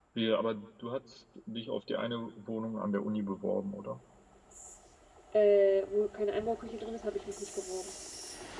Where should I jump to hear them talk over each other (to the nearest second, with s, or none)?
none